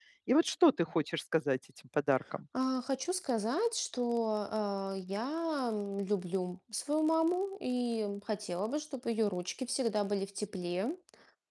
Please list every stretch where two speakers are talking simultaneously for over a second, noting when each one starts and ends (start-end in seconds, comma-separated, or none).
none